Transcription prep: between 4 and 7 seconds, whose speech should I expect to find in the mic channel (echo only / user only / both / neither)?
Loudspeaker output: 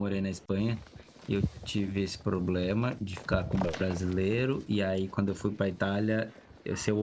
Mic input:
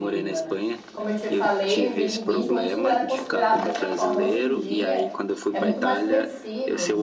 both